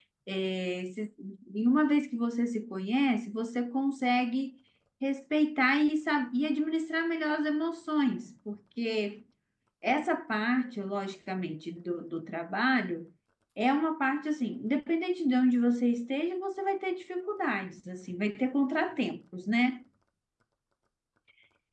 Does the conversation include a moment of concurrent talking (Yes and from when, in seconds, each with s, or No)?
No